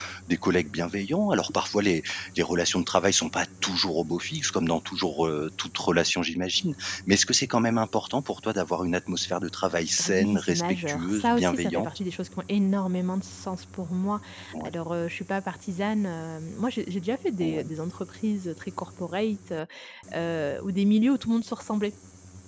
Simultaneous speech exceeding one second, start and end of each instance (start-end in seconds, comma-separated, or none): 10.0-11.9